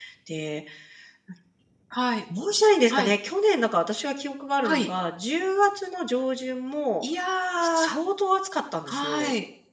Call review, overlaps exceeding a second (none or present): none